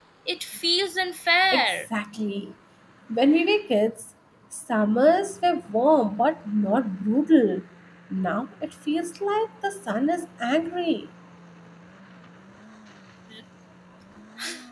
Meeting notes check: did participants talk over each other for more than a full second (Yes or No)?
No